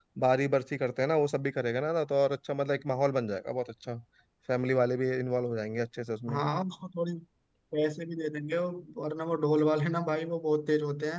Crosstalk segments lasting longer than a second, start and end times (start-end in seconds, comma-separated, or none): none